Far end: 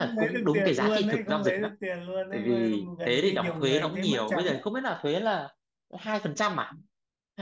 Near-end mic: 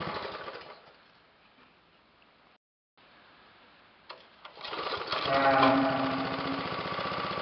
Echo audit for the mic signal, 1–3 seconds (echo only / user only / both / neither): neither